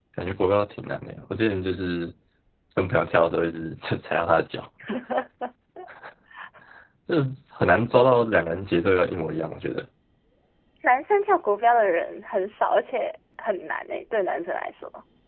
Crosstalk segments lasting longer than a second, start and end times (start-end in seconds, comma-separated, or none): none